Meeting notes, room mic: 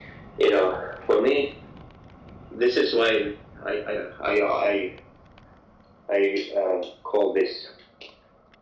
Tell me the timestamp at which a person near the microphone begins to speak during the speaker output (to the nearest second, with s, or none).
none